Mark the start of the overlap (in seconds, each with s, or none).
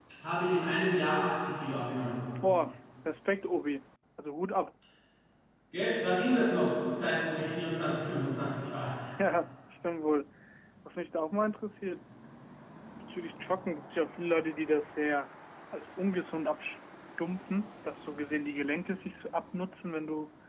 none